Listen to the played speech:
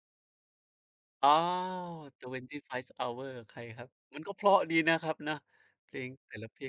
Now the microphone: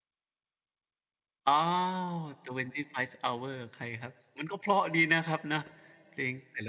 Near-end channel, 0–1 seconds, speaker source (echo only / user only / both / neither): neither